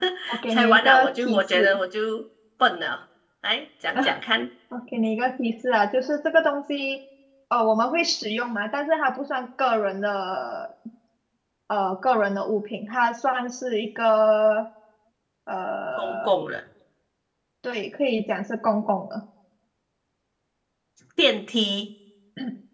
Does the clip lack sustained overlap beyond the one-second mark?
No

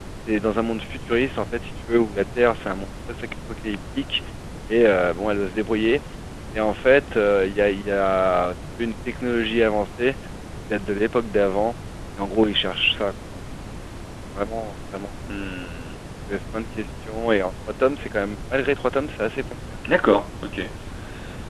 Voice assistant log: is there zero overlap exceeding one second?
Yes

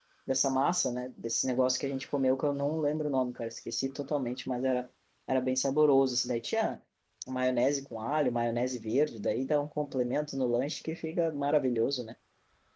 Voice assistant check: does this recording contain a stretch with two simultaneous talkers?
No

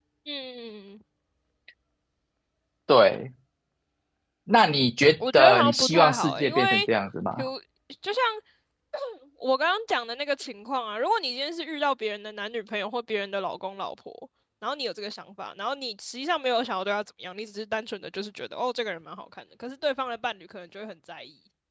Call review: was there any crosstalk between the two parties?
Yes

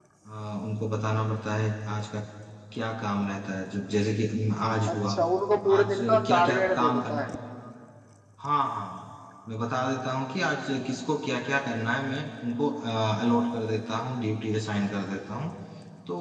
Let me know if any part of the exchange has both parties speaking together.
Yes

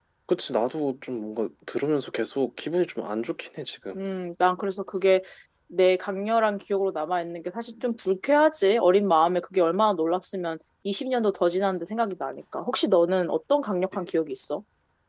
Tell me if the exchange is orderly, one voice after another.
Yes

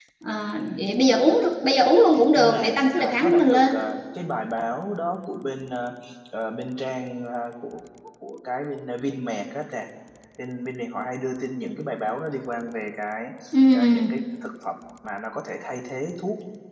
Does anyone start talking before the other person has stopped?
Yes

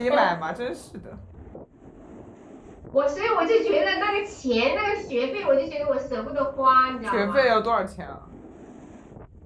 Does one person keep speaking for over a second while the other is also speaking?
No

